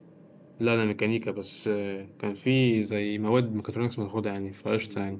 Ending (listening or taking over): taking over